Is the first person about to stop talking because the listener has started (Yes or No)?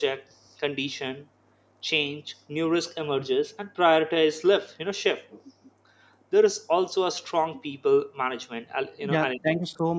Yes